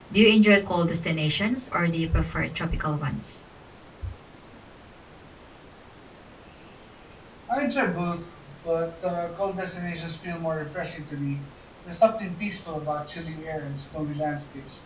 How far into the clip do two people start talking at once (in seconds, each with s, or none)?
none